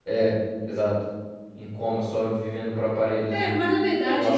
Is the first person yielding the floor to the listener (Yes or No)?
Yes